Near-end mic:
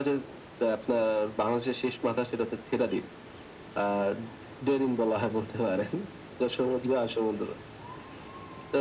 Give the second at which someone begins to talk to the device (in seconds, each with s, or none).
none